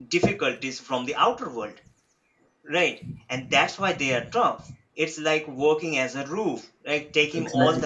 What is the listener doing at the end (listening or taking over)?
listening